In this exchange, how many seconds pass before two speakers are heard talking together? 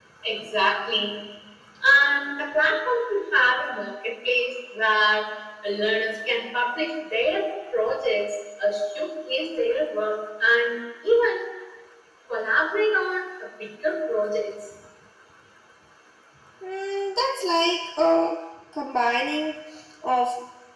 none

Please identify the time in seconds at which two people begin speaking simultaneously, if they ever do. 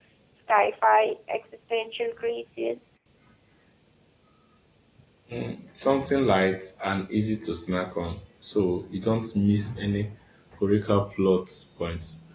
none

